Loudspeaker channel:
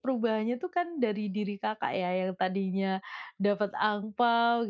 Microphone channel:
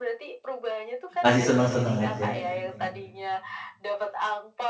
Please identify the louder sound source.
user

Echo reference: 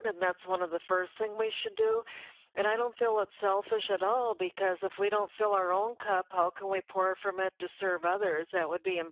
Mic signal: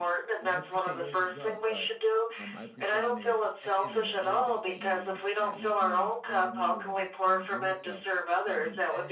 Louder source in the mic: echo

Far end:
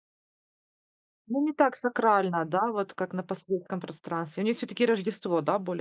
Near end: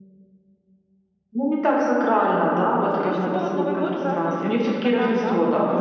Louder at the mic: echo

